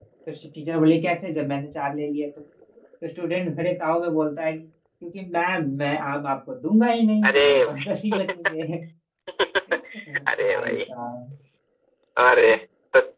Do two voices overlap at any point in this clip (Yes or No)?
Yes